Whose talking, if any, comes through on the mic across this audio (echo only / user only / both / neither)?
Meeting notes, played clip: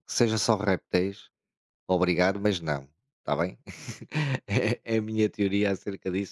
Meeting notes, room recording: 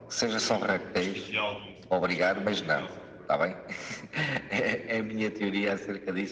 both